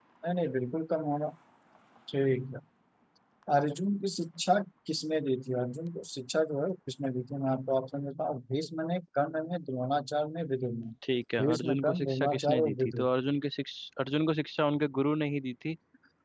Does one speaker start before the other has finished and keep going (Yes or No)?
Yes